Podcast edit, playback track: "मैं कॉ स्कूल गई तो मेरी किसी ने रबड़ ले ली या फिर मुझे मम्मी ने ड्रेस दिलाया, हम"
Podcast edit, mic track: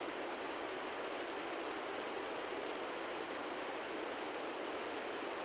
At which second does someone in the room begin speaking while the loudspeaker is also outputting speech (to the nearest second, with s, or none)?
none